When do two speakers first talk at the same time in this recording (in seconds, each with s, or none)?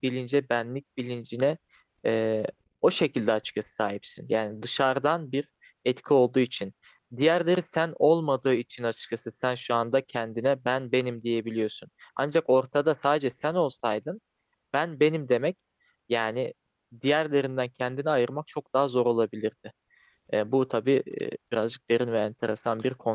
none